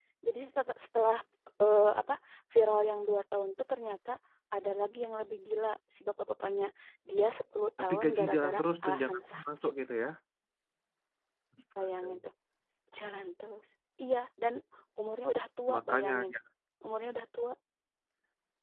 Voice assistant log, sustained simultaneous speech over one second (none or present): present